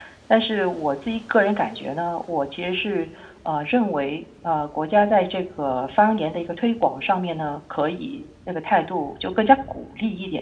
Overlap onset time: none

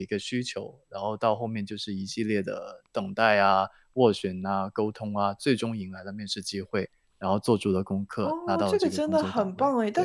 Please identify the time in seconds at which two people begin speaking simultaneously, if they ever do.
8.2 s

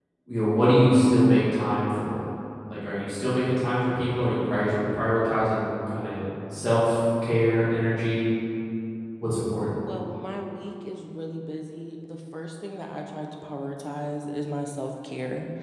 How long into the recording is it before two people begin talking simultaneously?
none

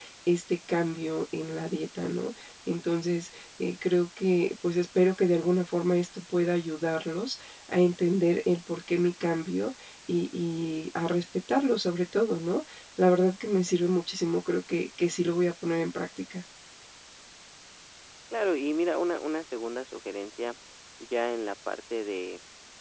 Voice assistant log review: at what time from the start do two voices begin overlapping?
none

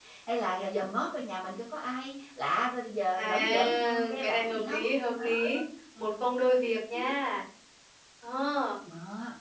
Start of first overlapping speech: 3.1 s

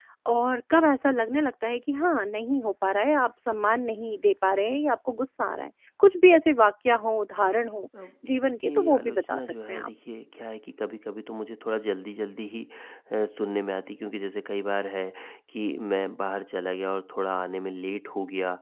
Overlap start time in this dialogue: 8.6 s

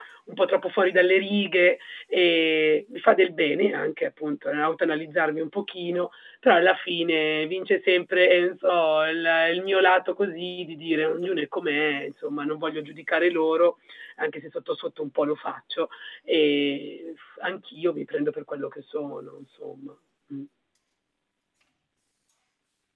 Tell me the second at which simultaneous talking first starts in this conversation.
none

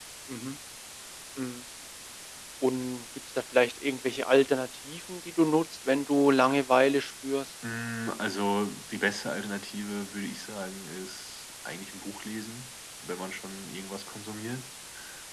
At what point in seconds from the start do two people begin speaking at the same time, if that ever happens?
none

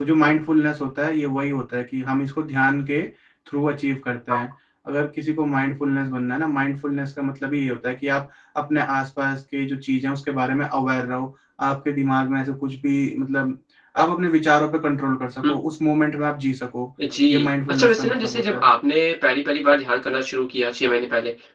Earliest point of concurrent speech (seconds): 17.3 s

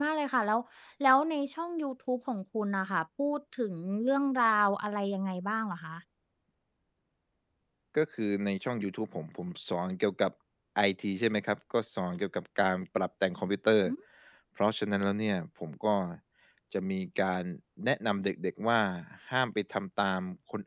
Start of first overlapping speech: none

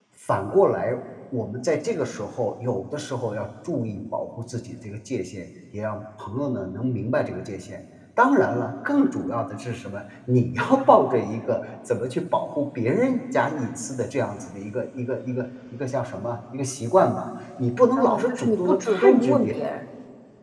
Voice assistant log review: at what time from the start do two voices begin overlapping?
17.9 s

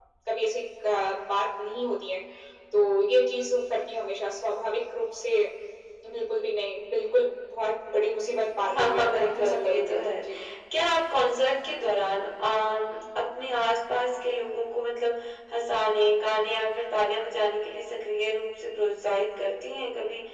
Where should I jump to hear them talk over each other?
8.8 s

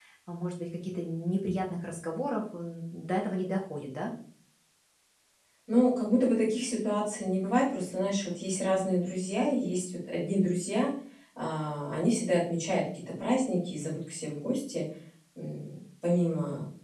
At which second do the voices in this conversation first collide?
none

